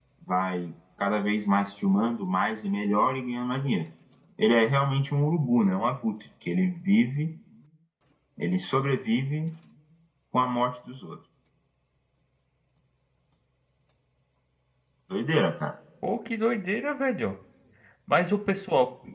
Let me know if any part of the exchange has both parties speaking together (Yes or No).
No